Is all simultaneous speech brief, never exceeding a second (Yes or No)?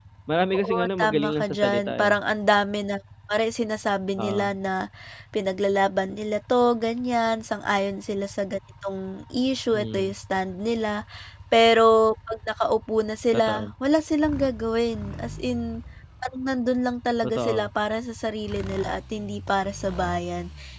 No